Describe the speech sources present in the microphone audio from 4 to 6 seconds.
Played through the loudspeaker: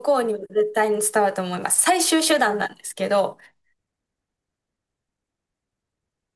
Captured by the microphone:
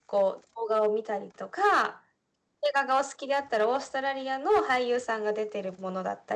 user only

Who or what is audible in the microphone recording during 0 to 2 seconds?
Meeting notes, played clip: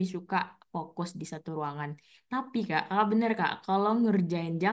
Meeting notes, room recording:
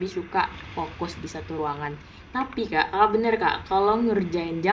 echo only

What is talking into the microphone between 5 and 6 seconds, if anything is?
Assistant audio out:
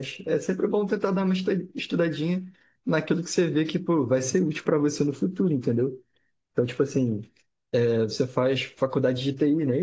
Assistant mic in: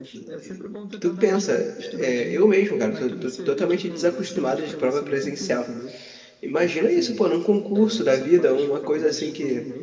both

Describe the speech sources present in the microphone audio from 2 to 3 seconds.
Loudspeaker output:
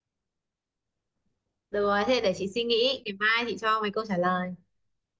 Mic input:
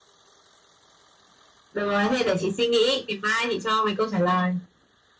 echo only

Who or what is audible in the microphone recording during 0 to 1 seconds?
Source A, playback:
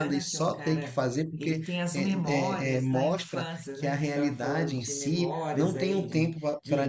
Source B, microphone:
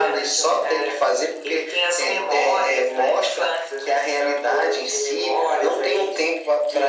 echo only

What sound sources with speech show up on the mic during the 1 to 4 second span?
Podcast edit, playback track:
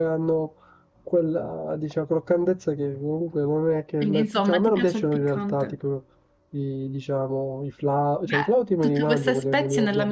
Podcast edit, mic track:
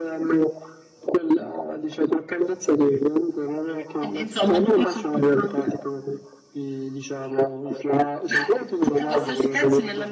echo only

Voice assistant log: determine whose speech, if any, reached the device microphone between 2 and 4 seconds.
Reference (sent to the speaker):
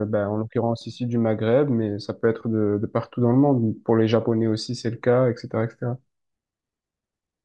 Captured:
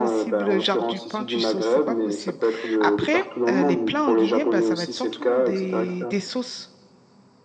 both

